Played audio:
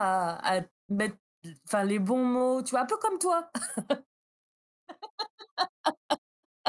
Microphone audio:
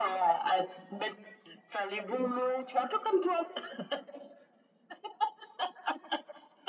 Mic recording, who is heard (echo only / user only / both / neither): echo only